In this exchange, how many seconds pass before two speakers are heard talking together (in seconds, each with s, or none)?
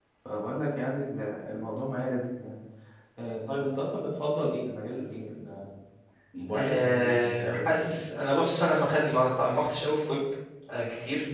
6.5 s